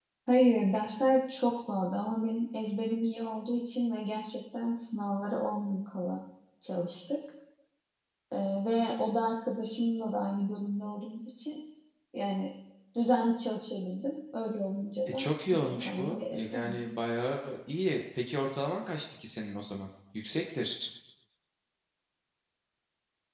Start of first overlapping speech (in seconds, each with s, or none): 15.1 s